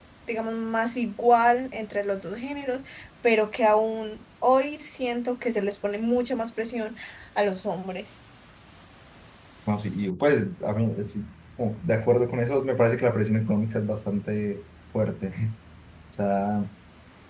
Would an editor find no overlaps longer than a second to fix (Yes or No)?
Yes